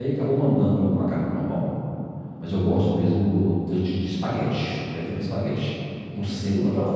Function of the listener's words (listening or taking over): listening